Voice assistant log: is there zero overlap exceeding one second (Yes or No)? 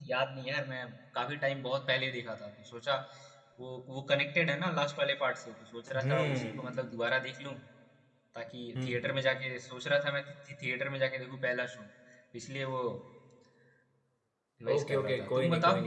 No